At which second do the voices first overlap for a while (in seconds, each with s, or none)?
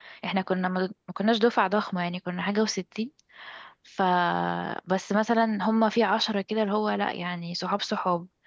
none